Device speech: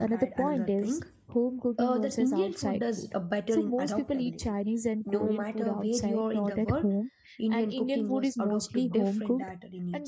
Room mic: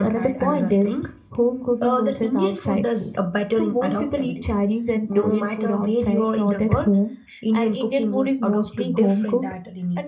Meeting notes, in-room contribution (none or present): none